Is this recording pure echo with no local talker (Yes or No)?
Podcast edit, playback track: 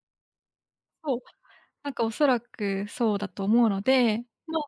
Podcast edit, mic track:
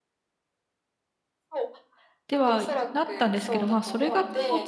No